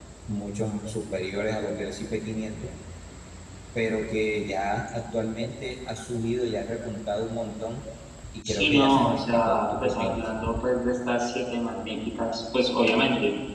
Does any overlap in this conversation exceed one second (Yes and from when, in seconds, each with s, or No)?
Yes, from 8.4 s